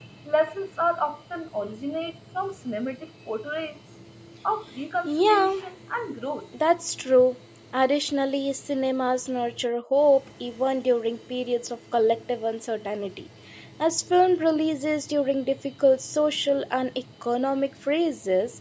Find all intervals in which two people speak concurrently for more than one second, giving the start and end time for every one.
none

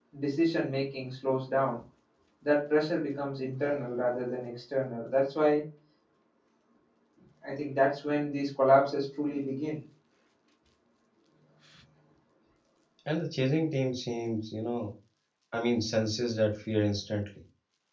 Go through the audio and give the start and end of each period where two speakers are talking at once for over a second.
none

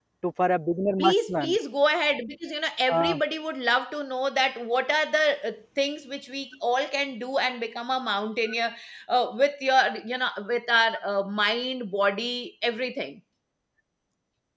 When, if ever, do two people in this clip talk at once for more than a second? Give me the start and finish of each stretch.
none

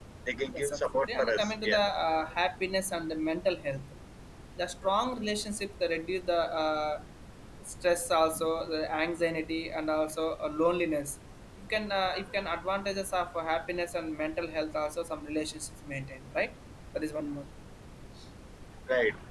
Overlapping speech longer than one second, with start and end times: 0.5-1.8

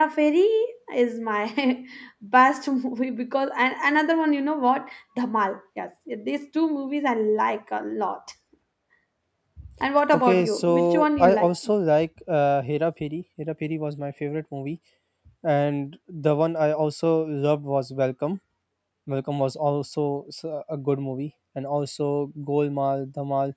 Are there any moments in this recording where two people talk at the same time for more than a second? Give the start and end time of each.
10.1-11.5

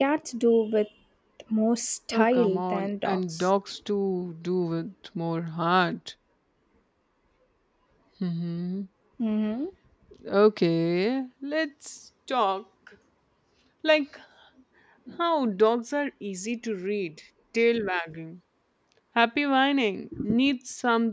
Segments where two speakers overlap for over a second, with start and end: 2.1-3.5

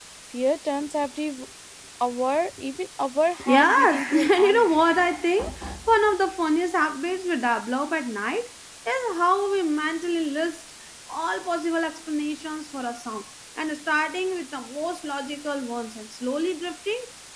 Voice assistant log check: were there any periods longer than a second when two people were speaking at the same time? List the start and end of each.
3.4-4.7

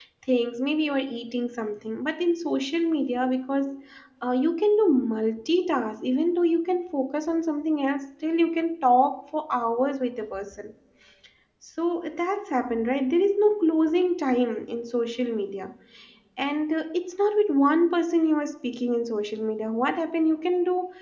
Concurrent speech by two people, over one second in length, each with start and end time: none

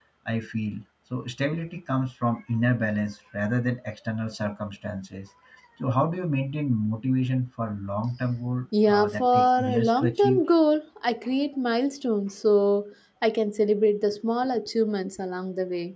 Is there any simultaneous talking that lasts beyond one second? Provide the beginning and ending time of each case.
8.9-10.4

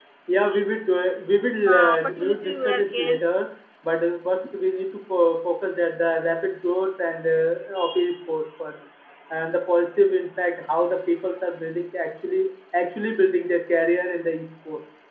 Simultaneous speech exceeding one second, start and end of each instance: 1.7-3.2

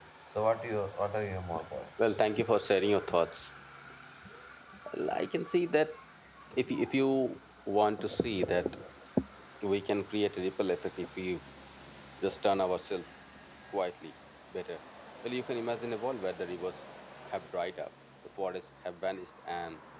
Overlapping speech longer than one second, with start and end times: none

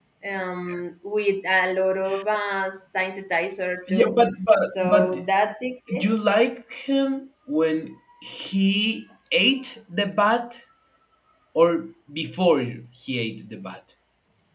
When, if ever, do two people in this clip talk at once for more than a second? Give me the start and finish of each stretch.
none

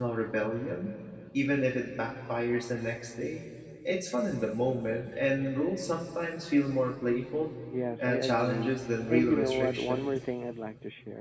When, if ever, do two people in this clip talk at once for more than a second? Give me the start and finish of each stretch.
8.0-10.2

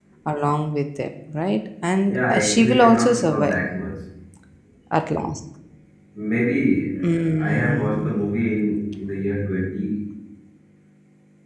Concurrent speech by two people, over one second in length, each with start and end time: 2.1-3.6, 7.0-8.3

